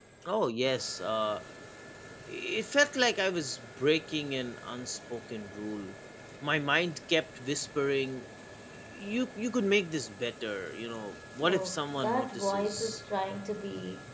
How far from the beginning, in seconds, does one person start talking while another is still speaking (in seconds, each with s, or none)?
11.4 s